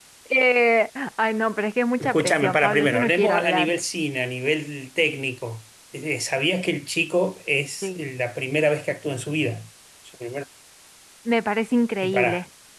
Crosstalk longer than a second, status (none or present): present